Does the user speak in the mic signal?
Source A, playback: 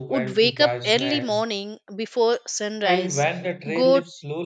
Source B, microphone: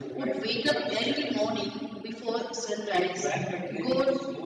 No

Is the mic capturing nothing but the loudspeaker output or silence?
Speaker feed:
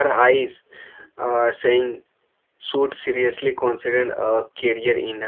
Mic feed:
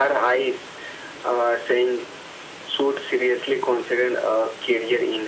Yes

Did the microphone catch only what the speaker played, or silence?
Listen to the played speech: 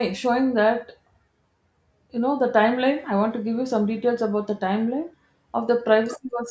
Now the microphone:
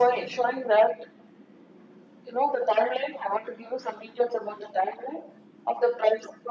Yes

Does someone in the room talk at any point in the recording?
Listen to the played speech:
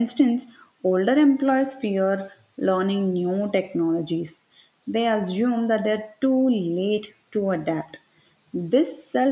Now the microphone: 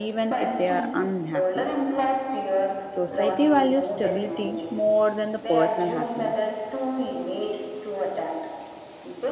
Yes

